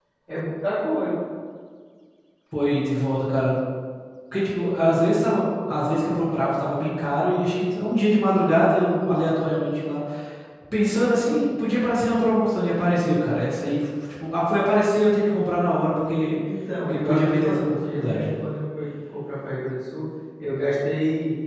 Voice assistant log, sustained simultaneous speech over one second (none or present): present